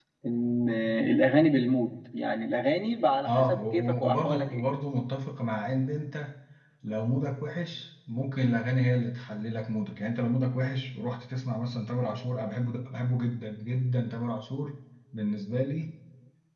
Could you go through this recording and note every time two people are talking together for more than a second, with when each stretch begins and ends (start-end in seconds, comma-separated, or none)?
3.3-4.6